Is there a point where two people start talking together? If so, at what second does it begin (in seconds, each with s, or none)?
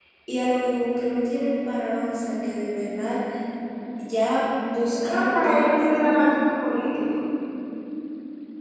4.9 s